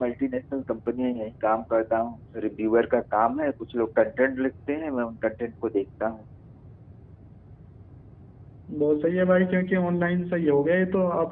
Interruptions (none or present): none